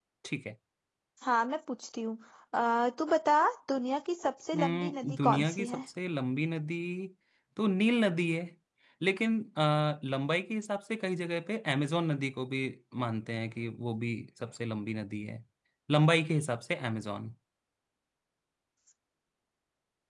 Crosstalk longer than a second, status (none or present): present